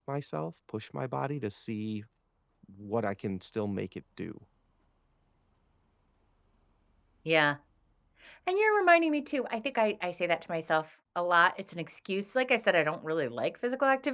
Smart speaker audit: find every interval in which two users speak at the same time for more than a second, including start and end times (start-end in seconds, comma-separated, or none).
none